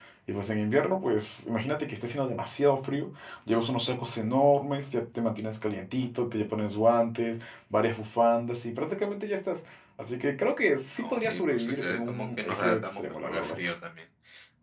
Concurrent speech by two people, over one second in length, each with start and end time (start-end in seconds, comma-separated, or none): 11.0-13.6